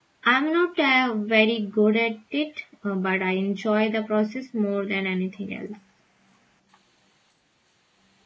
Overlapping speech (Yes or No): No